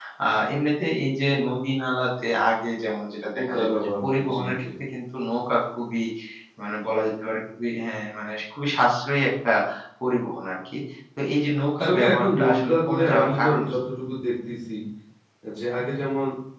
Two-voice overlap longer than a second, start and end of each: 3.3-4.7, 11.8-13.8

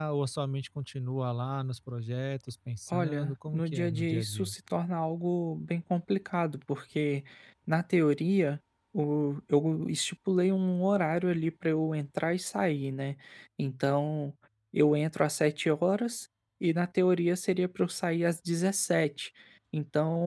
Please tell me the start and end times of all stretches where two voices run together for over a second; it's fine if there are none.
2.9-4.5

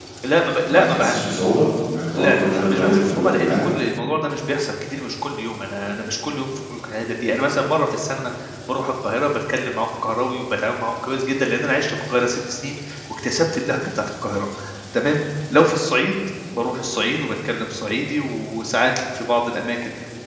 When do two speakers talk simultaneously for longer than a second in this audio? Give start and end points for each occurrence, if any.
2.2-3.7

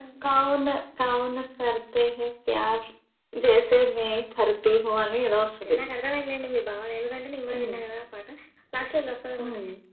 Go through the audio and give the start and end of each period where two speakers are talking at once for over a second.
none

